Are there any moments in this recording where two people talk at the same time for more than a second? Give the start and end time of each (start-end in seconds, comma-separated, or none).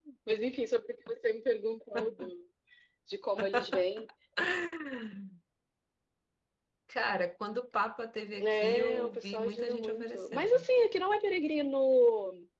8.4-10.7